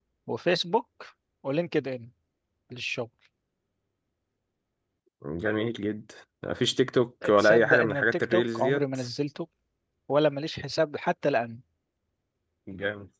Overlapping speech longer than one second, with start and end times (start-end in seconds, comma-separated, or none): 7.4-8.8